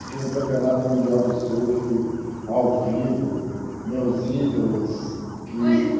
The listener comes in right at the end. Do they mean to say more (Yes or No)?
No